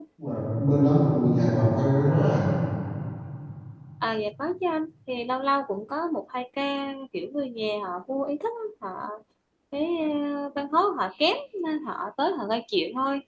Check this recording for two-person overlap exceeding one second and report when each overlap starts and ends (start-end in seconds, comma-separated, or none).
none